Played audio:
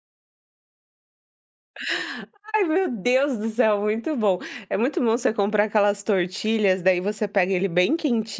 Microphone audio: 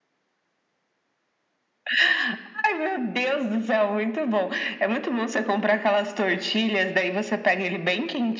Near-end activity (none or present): none